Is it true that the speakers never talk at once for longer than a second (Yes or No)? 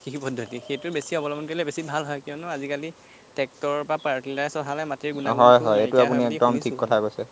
No